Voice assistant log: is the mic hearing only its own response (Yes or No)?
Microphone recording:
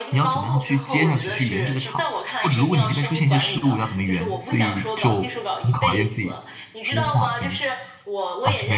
No